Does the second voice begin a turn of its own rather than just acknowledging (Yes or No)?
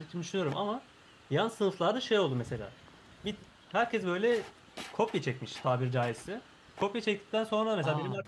No